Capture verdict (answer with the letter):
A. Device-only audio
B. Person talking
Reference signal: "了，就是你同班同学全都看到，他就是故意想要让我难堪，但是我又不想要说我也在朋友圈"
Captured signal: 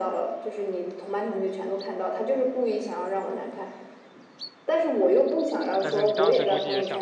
B